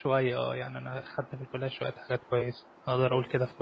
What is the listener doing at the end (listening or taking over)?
taking over